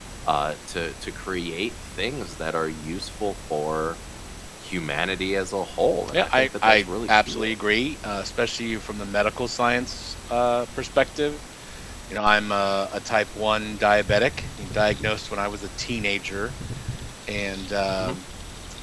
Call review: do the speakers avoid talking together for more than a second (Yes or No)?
No